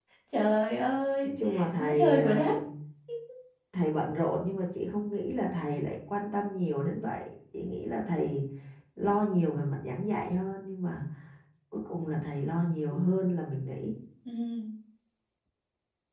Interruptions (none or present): present